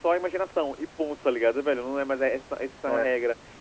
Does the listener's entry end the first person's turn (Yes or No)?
No